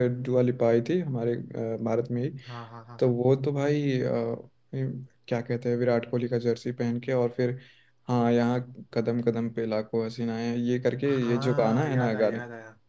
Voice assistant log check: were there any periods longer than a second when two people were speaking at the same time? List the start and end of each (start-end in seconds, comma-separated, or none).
11.1-12.4